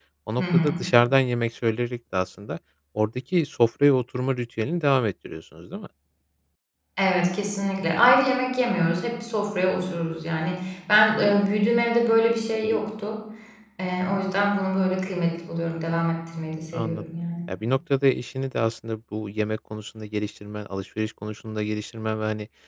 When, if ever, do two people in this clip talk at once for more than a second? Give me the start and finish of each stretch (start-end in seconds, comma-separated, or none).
none